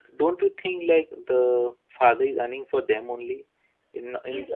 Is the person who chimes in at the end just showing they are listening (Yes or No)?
No